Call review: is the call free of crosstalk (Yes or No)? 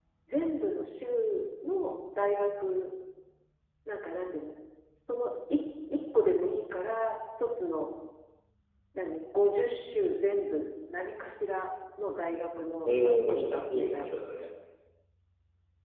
No